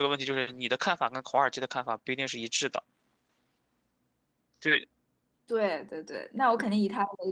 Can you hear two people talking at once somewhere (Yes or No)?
No